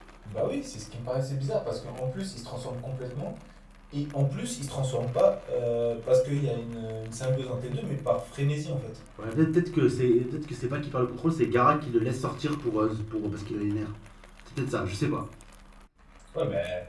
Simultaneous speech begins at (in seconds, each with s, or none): none